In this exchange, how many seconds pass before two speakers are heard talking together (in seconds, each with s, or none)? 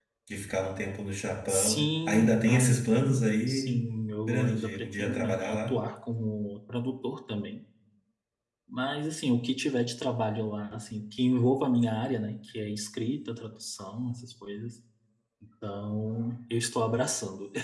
1.5 s